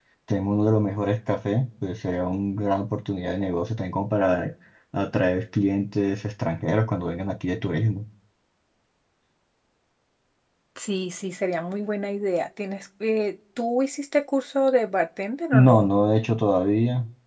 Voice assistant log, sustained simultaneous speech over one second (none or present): none